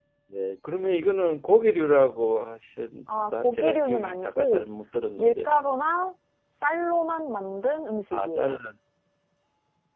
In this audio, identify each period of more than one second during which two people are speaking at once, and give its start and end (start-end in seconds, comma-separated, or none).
3.2-4.6